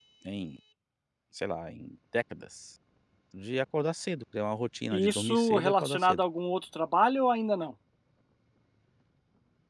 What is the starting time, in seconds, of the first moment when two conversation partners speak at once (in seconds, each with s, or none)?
4.9 s